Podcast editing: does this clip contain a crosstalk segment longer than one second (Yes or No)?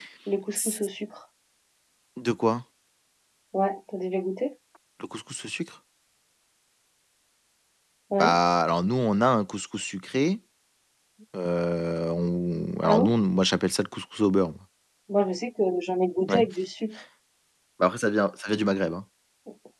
No